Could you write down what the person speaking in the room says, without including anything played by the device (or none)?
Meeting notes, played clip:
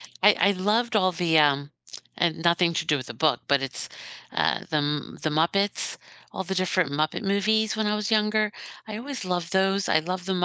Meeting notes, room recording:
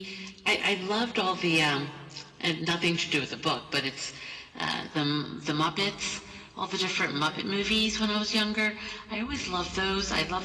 none